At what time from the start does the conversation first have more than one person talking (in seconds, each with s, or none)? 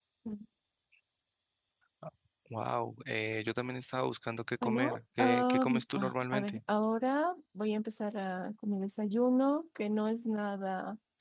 4.6 s